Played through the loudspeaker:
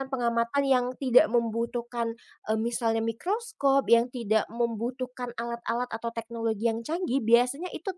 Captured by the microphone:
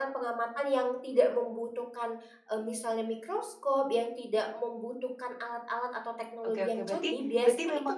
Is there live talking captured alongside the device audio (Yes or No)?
Yes